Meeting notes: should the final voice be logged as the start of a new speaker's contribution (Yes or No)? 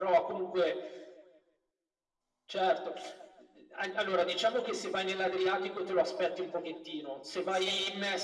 No